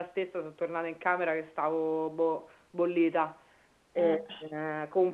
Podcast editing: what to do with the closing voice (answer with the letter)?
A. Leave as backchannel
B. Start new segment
A